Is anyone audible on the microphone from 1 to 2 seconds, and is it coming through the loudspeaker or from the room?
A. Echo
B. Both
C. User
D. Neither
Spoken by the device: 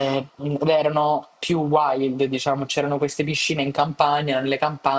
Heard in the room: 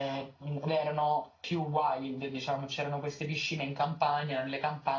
A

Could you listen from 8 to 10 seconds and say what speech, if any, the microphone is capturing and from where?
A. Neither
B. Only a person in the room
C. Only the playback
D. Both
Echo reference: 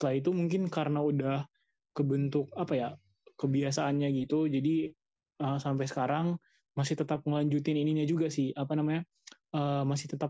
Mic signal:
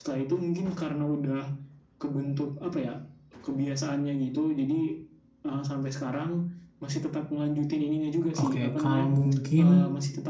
D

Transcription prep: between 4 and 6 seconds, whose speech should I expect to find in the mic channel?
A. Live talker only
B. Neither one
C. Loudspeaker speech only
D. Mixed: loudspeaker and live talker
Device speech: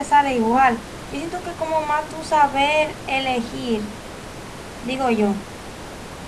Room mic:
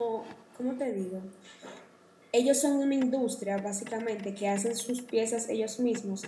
A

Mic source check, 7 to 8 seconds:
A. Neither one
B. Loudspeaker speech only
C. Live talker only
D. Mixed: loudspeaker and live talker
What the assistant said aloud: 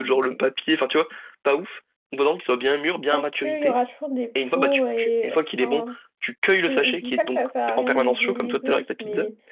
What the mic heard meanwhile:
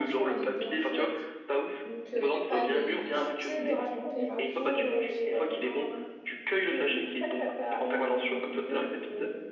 B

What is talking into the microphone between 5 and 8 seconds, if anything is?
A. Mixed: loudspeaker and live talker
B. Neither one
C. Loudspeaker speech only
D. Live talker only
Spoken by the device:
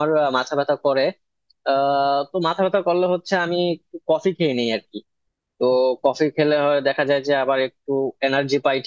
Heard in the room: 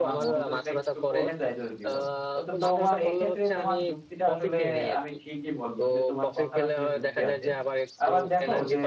A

